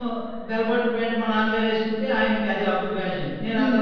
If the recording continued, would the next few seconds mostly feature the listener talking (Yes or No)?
No